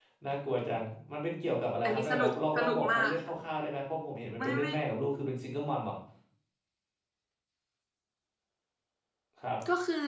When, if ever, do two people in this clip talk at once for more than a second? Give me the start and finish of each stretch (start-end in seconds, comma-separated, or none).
1.8-3.3